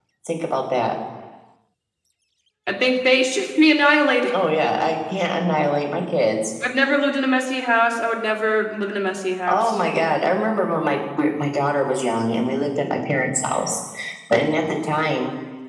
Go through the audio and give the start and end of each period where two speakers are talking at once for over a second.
none

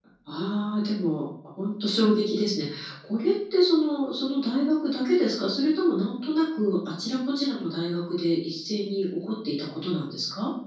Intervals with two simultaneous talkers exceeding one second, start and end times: none

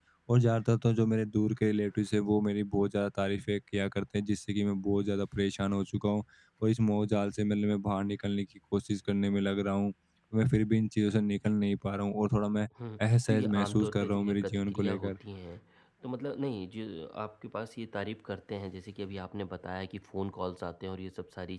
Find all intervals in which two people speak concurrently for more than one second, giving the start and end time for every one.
13.3-15.1

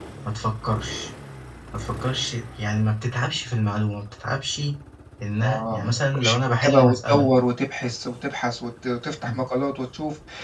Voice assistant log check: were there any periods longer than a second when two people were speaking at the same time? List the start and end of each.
5.4-7.2

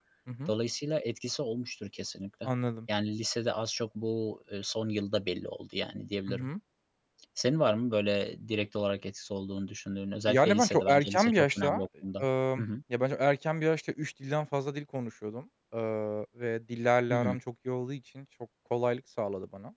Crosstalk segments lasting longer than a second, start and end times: 10.3-11.8

